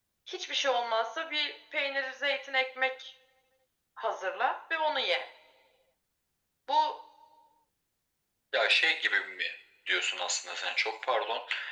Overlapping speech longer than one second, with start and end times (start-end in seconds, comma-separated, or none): none